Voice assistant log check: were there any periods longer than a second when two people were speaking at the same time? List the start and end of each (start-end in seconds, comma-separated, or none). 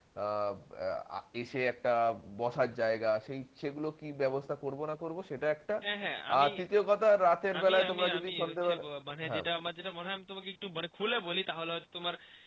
7.6-8.8